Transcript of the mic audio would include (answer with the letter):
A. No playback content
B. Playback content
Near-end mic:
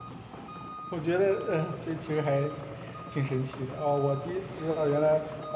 A